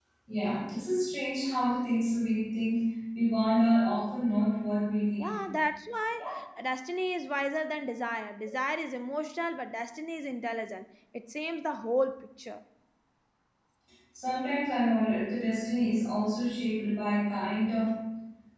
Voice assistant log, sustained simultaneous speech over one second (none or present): none